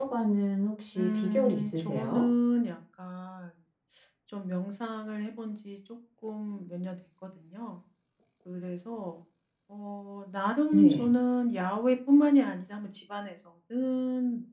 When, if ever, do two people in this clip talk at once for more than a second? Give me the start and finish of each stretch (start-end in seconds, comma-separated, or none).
0.9-2.2